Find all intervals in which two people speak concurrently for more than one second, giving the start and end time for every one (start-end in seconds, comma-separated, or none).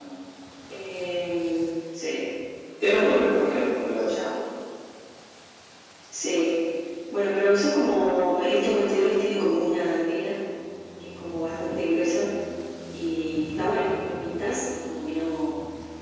2.9-4.1